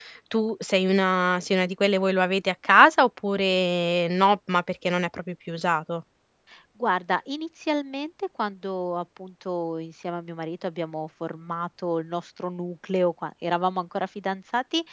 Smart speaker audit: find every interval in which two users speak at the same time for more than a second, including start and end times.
none

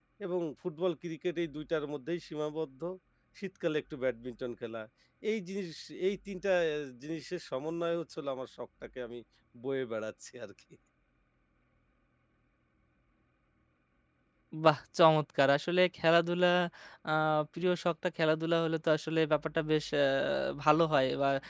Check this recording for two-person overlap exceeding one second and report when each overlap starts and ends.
none

